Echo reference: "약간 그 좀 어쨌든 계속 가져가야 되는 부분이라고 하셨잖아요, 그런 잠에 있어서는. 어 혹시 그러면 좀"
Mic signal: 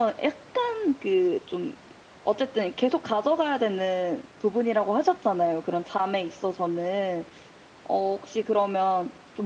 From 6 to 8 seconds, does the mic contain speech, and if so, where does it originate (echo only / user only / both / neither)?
echo only